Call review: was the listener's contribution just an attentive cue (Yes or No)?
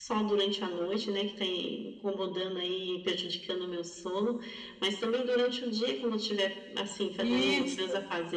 Yes